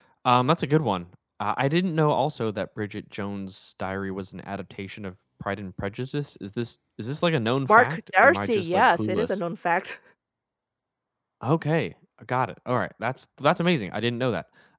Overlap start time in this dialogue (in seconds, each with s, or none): 7.7 s